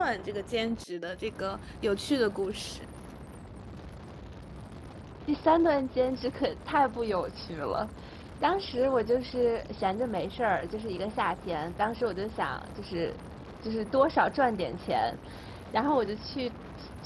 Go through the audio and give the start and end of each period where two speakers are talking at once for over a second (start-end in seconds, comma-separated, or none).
none